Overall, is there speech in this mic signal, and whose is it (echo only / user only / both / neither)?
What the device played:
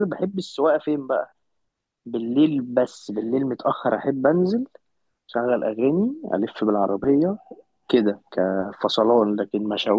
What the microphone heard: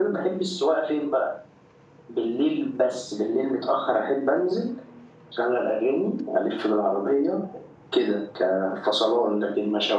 echo only